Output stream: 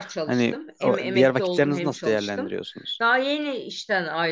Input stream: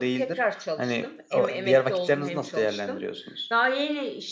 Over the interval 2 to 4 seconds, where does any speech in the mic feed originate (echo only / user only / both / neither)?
echo only